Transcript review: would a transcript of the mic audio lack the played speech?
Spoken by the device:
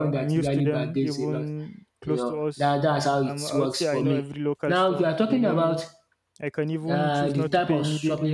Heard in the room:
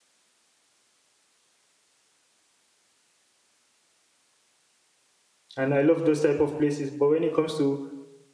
Yes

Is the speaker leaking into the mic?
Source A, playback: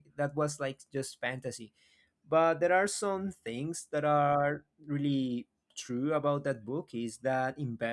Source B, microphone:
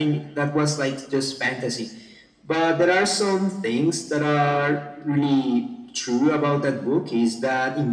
Yes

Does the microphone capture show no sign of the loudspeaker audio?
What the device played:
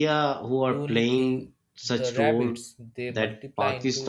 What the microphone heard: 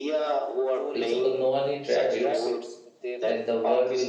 No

